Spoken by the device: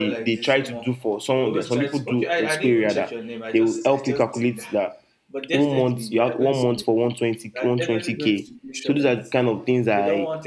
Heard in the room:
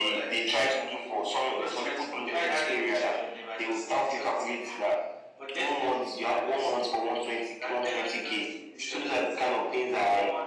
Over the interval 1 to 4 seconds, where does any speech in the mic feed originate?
echo only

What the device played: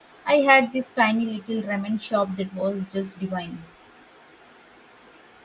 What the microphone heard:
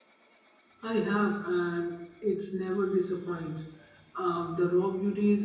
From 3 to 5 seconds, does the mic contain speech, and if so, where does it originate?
user only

